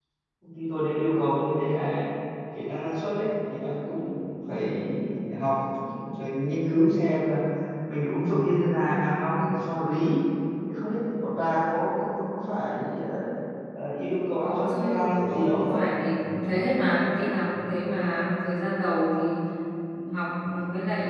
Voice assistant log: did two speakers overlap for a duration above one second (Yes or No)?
Yes